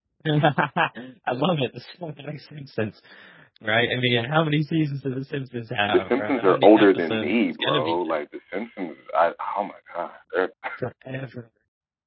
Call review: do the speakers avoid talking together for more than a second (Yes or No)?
No